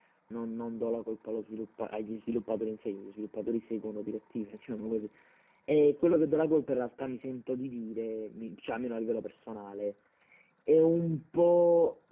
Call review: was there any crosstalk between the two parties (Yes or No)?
No